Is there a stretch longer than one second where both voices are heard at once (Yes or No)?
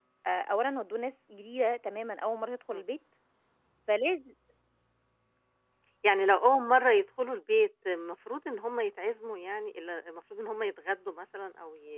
No